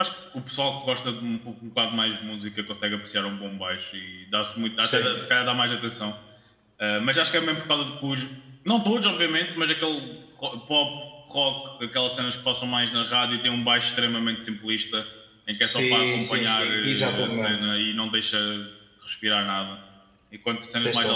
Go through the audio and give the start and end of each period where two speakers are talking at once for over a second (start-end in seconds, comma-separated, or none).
15.6-17.6